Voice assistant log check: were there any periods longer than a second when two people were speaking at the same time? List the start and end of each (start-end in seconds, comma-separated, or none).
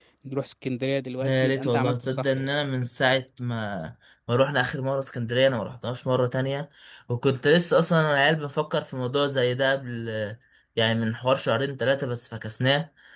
1.2-2.5